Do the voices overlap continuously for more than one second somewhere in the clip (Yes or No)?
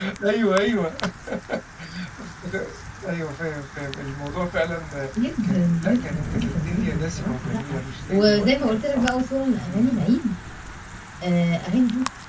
Yes